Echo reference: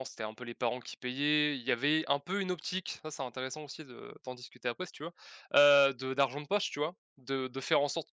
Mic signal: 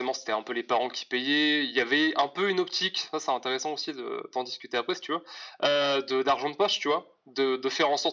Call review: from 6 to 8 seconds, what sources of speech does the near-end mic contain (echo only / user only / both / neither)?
echo only